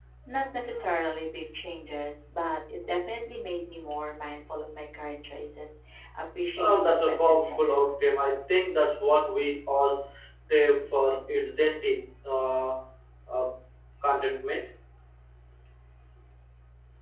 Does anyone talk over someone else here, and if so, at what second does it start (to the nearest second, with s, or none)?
7 s